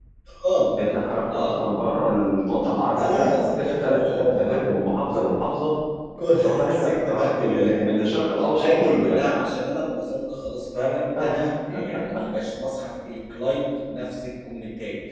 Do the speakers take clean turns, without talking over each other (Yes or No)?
No